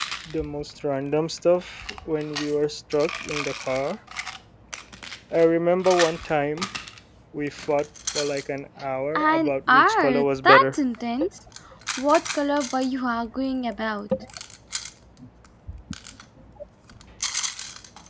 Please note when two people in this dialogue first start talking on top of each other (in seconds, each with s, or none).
9.2 s